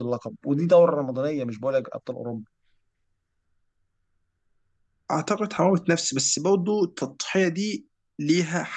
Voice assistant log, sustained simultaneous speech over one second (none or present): none